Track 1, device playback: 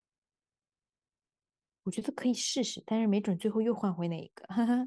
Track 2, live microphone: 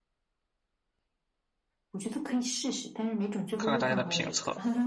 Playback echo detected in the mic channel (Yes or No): Yes